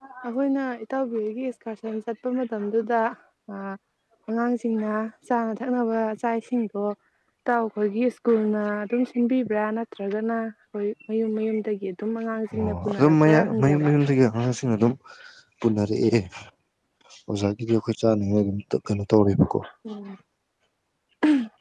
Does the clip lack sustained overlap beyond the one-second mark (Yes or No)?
No